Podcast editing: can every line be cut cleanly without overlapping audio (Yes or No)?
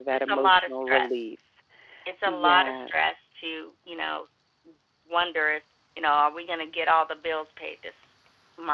No